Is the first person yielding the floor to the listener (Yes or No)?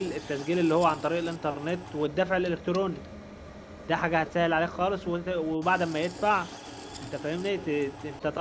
No